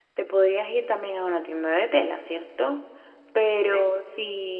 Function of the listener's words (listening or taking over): listening